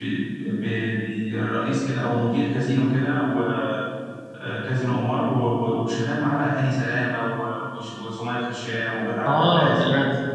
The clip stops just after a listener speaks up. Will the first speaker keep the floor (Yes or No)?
No